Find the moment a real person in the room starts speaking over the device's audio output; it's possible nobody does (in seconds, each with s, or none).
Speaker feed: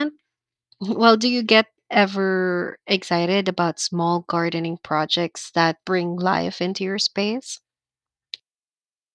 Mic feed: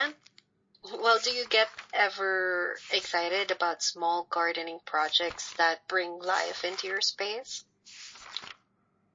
none